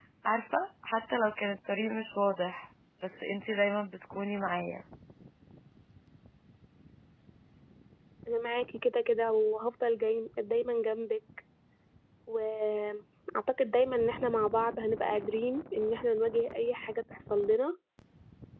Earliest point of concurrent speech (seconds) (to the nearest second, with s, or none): none